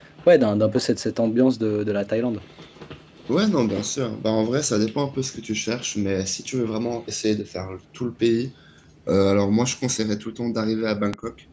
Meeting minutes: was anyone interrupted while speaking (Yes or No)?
No